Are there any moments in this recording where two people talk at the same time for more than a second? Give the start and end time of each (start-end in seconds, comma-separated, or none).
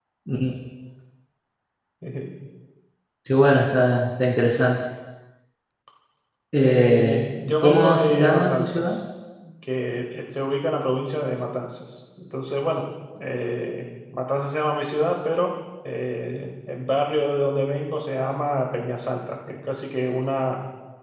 6.6-9.0